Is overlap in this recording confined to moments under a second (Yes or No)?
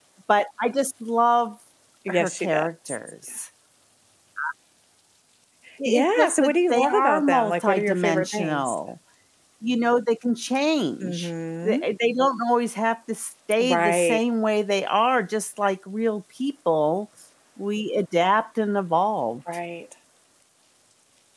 No